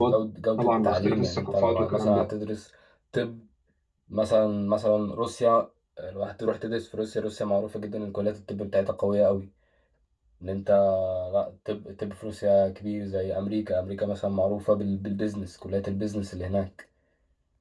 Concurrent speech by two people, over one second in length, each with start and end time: 0.6-2.3

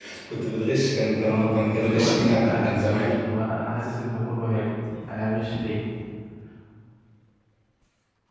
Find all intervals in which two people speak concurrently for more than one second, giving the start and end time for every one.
1.2-3.1

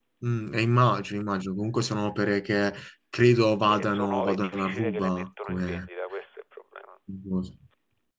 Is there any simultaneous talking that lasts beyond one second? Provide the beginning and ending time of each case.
3.7-5.8

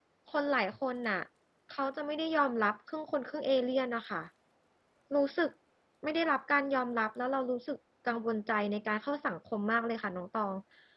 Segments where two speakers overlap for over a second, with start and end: none

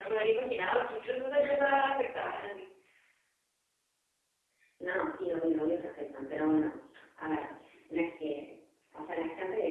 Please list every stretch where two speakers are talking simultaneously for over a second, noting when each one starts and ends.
none

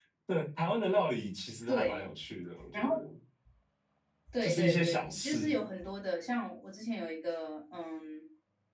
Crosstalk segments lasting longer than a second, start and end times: 4.4-5.6

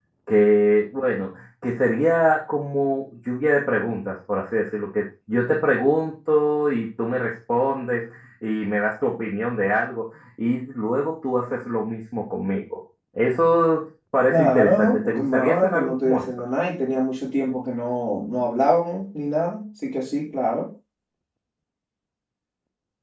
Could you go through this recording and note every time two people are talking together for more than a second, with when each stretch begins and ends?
14.3-16.2

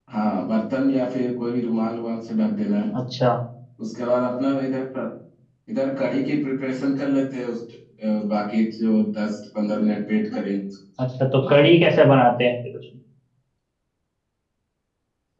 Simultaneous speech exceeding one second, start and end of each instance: none

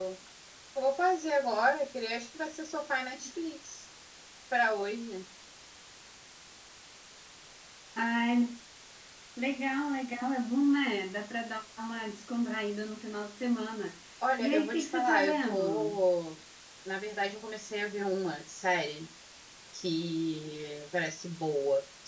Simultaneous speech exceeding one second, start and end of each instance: 14.4-16.0

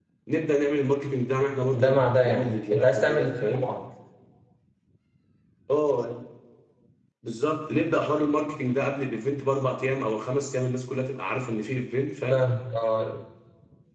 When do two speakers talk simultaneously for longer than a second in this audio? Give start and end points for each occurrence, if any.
1.7-3.7

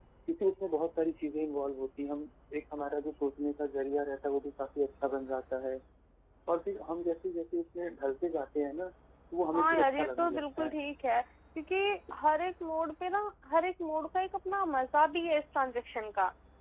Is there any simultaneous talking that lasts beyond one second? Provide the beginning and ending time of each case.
9.6-10.8

